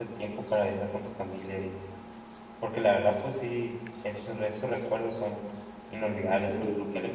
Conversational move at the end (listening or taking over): listening